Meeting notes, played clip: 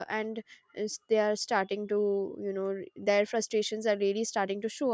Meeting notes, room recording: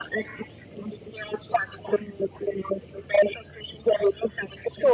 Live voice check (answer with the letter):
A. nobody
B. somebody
A